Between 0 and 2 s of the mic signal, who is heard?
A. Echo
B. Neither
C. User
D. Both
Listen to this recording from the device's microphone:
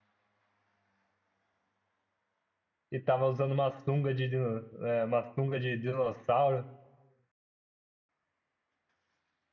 B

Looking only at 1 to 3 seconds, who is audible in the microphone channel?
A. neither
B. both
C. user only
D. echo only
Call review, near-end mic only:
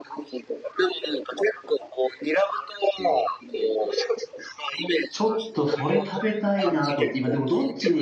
D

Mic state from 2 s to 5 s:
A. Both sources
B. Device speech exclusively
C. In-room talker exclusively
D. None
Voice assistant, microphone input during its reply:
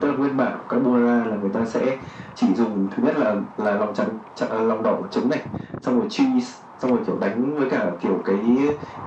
B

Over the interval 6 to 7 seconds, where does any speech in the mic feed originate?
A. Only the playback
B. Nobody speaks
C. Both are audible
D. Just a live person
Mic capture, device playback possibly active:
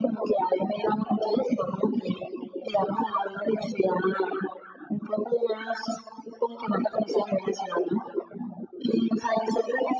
A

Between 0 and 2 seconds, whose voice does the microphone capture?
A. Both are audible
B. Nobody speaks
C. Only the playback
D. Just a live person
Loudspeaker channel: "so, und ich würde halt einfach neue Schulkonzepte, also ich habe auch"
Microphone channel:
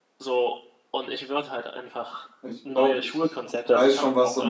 C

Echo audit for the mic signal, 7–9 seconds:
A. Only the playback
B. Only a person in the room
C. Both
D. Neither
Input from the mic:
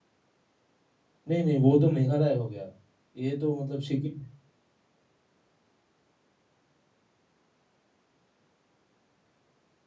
D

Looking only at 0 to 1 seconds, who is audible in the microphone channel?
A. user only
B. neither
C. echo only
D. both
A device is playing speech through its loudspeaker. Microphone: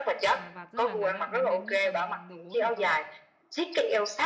D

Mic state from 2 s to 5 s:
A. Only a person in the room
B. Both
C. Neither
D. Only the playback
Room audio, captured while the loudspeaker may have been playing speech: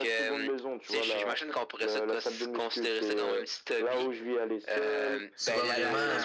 D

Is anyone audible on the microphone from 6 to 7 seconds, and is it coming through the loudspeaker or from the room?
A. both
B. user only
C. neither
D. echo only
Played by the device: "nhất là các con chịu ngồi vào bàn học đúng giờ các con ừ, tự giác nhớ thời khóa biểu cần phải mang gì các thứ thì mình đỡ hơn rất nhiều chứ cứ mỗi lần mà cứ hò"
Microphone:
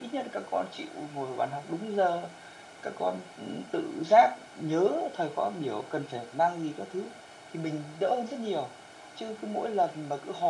D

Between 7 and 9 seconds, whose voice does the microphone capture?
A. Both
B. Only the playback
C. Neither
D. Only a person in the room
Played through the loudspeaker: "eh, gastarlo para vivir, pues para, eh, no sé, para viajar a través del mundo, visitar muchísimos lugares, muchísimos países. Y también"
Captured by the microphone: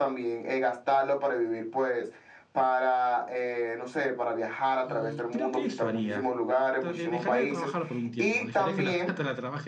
A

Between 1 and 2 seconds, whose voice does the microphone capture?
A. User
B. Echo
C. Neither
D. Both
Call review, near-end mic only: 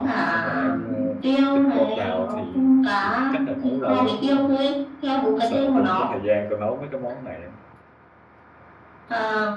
D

